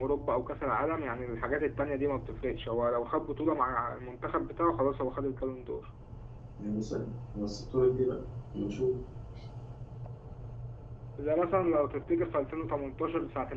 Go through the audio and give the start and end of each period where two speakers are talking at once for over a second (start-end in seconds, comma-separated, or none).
none